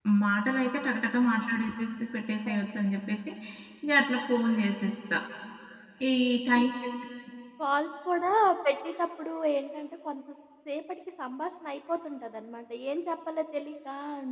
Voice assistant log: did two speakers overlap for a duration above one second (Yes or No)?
No